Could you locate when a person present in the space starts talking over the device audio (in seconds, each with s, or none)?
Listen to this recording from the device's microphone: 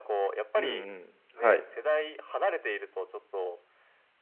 0.6 s